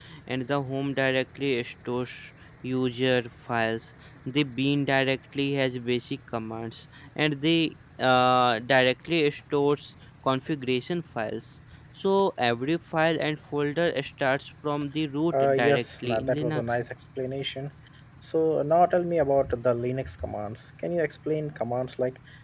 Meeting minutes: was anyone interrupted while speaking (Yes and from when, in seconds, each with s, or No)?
Yes, from 15.4 s